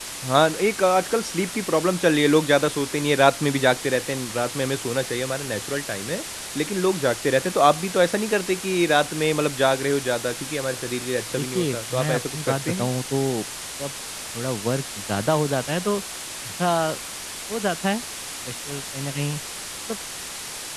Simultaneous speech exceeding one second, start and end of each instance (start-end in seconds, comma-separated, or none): 11.3-12.9